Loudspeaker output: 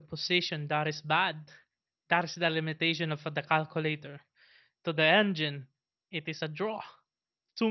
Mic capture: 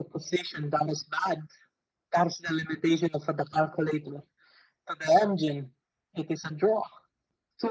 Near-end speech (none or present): none